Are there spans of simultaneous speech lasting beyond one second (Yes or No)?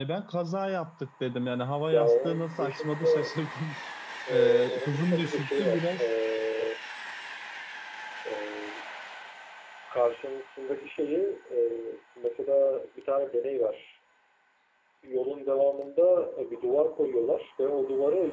Yes